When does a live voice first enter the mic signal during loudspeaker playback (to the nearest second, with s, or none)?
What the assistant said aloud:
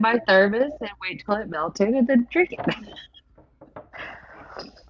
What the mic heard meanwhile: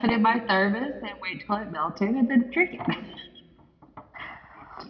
none